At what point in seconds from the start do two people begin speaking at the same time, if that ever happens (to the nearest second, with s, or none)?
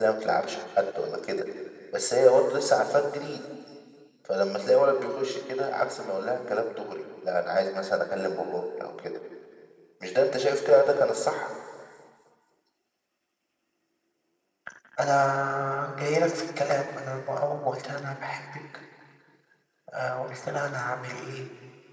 none